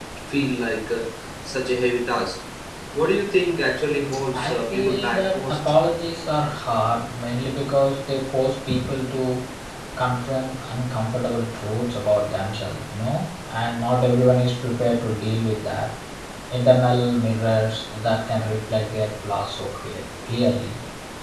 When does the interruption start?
4 s

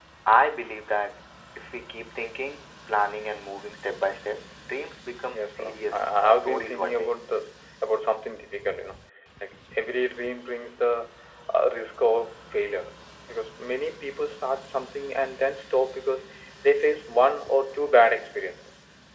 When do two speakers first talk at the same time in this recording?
5 s

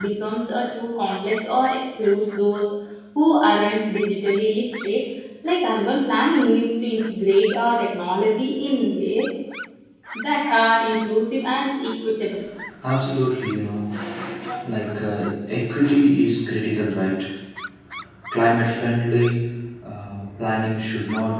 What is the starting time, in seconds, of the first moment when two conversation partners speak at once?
none

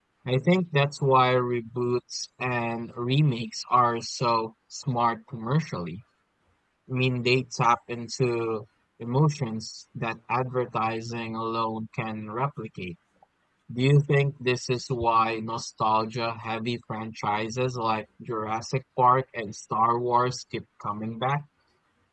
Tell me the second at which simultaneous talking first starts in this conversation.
none

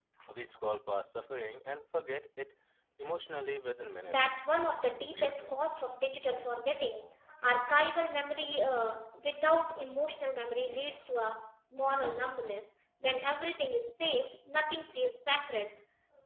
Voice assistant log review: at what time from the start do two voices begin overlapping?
4 s

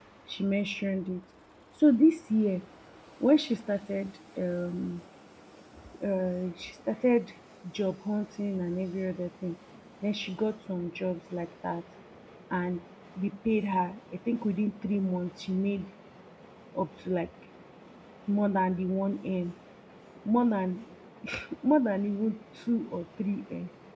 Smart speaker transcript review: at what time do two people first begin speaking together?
none

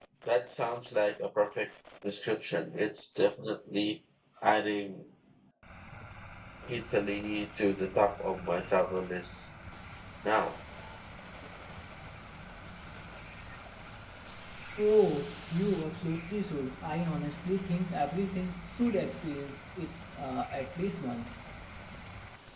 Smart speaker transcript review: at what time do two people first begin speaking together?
none

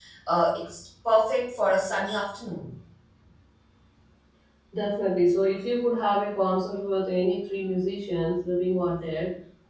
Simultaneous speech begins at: none

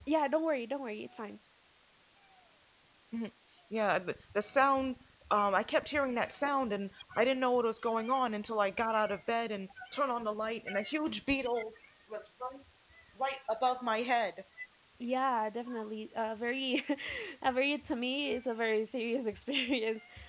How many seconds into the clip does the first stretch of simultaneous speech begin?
none

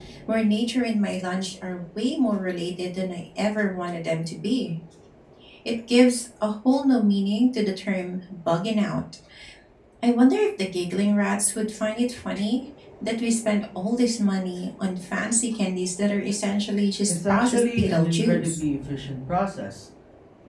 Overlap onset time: 17 s

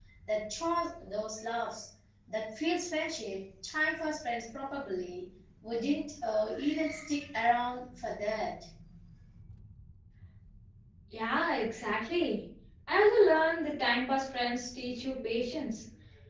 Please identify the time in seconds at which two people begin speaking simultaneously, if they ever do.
none

